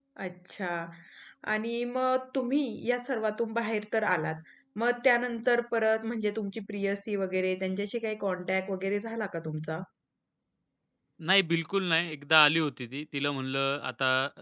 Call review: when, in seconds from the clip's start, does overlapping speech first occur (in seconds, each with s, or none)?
none